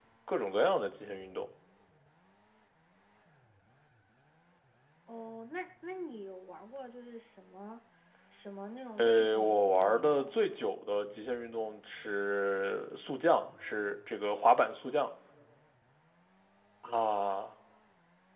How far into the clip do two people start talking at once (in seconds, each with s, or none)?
9.0 s